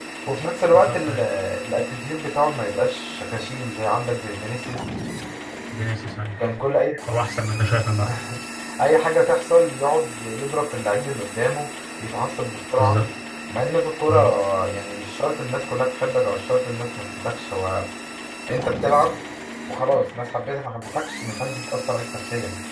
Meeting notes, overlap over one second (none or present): none